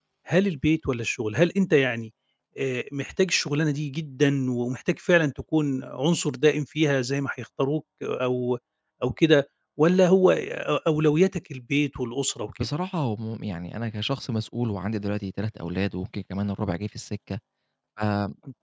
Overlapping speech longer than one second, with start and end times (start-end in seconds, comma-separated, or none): none